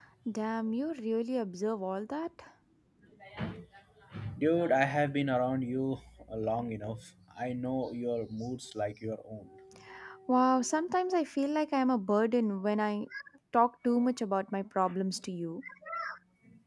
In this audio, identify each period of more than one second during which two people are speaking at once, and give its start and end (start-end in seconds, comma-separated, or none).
none